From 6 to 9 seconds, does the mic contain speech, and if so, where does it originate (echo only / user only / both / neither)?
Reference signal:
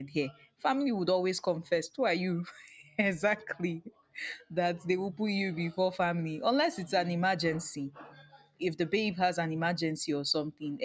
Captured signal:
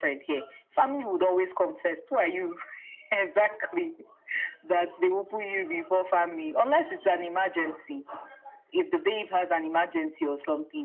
echo only